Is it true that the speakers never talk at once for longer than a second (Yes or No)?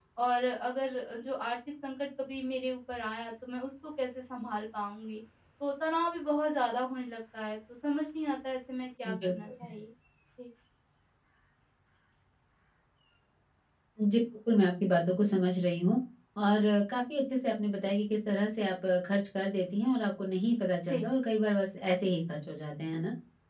Yes